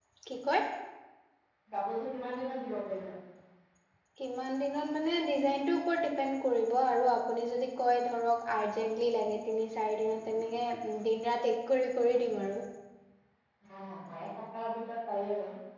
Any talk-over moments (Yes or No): No